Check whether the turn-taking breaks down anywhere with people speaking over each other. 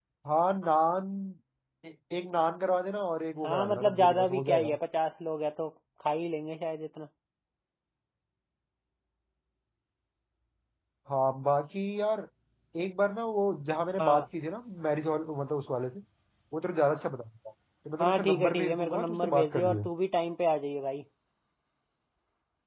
Yes, from 3.4 s

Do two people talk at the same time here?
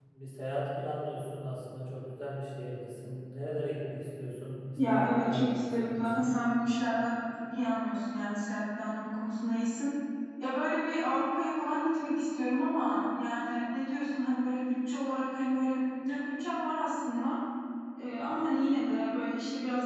Yes, from 4.8 s

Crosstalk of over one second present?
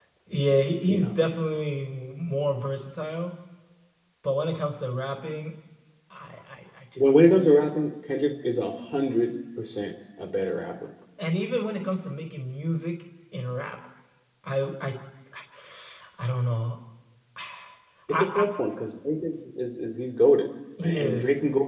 No

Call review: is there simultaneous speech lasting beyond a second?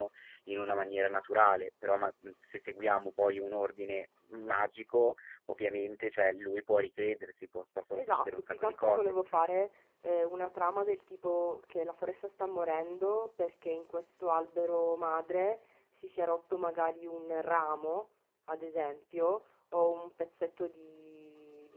Yes, from 7.9 s

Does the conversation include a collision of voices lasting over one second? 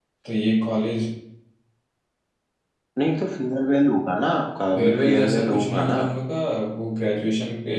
Yes, from 4.8 s

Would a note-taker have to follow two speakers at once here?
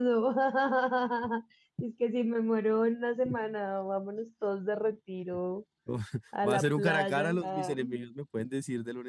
Yes, from 6.4 s

